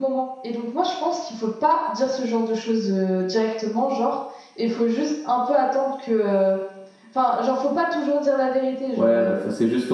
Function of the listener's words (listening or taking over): taking over